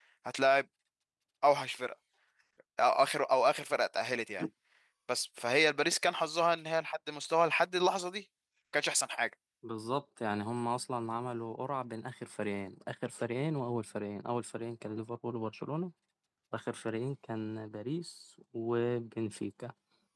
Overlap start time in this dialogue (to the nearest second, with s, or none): none